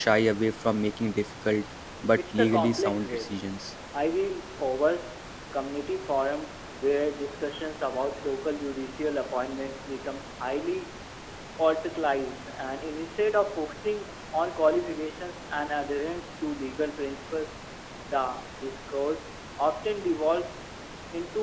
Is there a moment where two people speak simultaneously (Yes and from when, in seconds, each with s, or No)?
Yes, from 2.2 s